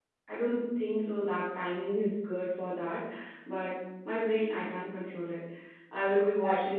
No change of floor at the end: Yes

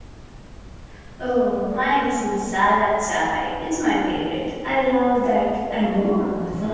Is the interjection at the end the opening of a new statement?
Yes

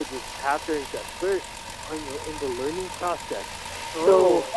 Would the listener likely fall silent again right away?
Yes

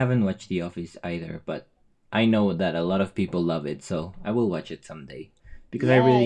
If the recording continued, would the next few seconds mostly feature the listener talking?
Yes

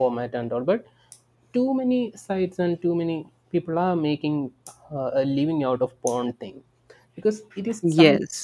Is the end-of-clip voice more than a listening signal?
No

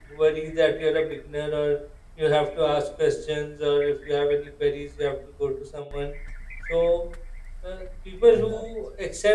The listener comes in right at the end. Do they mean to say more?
No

